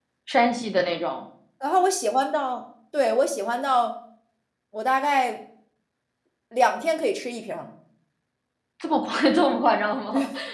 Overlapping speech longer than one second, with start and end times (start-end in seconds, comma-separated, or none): none